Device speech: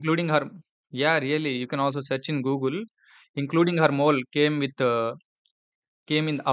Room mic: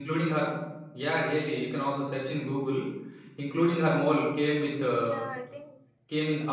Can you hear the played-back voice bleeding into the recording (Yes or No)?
Yes